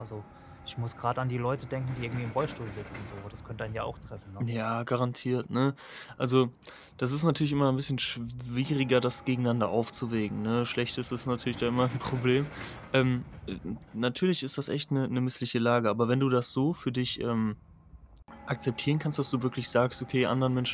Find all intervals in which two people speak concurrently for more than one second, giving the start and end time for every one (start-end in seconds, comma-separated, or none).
none